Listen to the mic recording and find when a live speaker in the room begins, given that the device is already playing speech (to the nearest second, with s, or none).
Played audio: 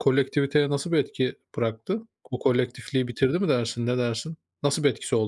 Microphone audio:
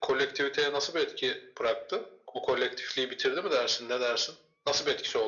none